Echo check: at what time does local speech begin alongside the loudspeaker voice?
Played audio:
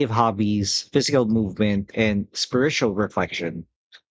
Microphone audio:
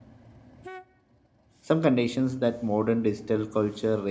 1.6 s

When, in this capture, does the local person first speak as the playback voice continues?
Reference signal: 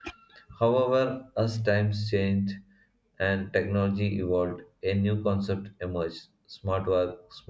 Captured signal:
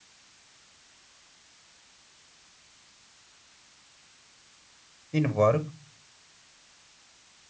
5.1 s

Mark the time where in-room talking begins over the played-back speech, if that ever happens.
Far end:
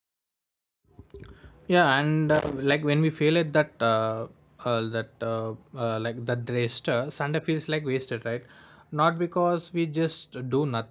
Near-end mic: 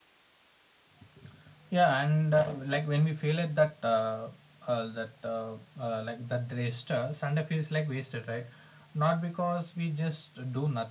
none

